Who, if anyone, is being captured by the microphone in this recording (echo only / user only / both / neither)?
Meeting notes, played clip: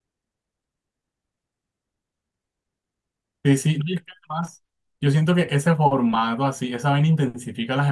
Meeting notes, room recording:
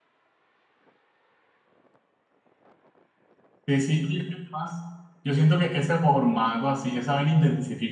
echo only